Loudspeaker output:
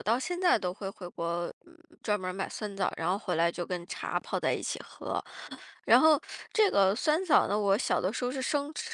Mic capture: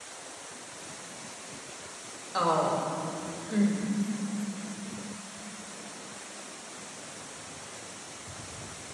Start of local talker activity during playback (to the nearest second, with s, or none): 2 s